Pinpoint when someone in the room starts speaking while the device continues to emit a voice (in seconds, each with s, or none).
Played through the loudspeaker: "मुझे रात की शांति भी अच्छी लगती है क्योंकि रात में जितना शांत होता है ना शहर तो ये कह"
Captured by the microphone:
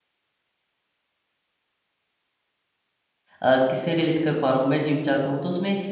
3.4 s